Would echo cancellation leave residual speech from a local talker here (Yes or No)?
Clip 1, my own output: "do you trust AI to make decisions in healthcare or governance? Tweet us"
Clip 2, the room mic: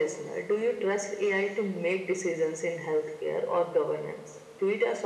No